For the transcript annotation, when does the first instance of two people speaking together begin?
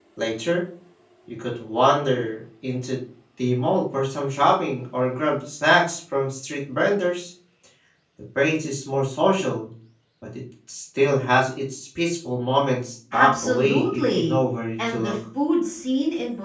13 s

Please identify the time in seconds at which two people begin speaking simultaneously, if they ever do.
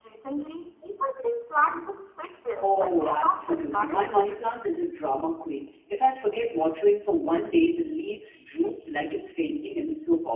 3 s

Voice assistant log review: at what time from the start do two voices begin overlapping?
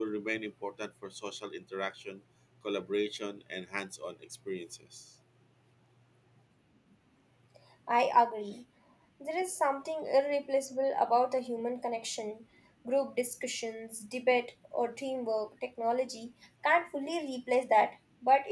none

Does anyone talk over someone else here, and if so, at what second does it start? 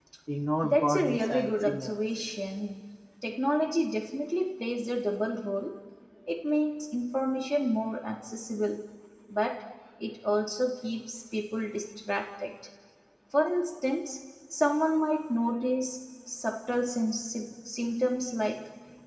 1 s

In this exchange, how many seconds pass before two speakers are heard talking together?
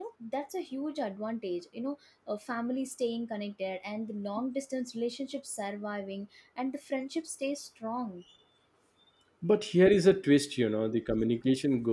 none

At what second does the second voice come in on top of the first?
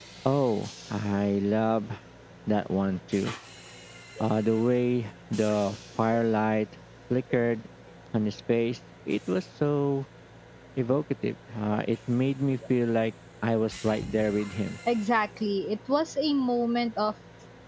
none

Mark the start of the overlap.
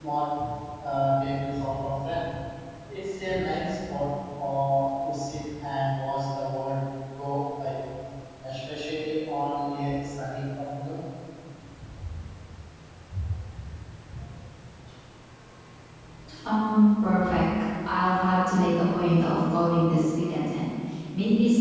none

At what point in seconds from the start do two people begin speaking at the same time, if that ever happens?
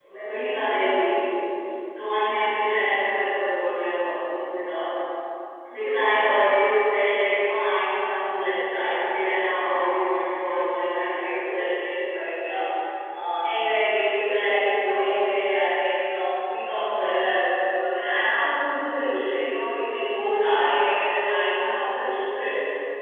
none

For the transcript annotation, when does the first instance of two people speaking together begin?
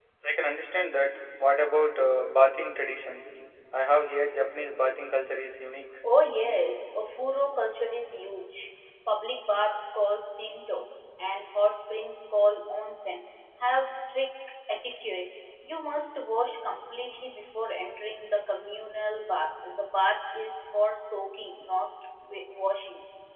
none

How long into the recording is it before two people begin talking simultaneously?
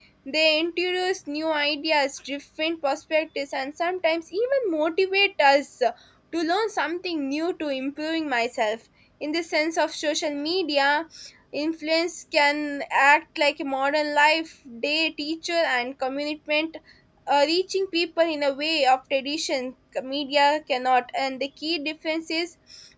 none

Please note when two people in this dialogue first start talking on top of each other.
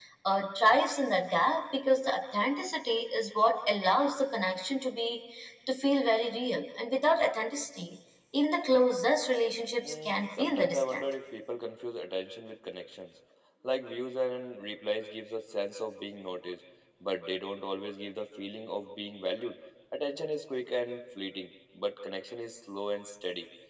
10 s

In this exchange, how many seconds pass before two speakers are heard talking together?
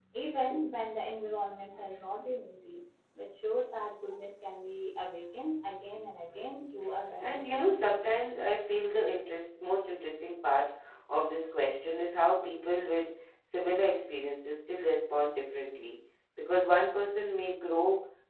7 s

